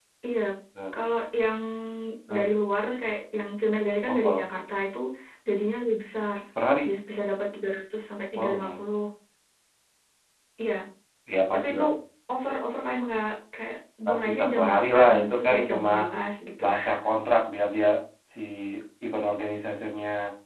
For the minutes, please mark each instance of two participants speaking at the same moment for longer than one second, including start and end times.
14.1-15.9

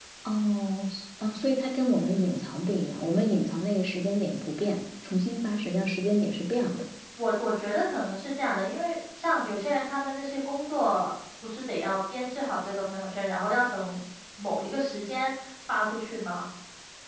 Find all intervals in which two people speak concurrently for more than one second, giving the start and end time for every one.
none

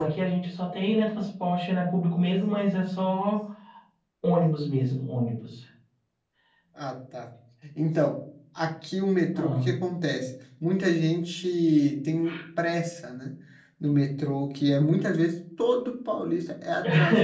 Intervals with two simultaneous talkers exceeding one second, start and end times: none

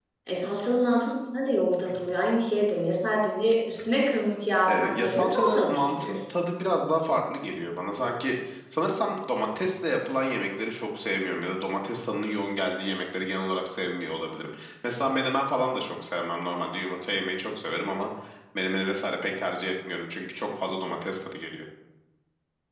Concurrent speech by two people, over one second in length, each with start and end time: 4.7-6.2

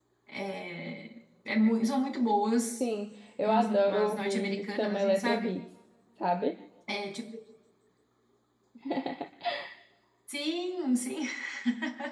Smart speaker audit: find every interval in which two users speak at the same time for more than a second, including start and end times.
3.5-5.6

